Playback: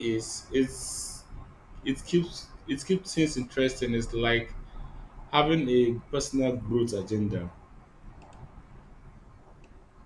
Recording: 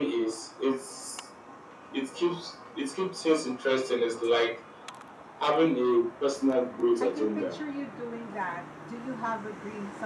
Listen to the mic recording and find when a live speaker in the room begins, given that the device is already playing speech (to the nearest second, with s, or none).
7 s